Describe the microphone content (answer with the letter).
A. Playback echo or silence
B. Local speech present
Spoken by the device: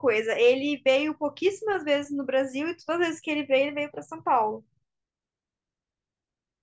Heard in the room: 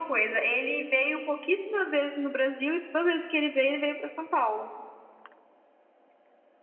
A